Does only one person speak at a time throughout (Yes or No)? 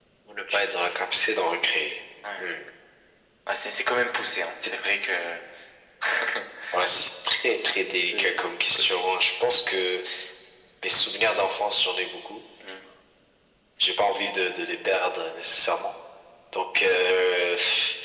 No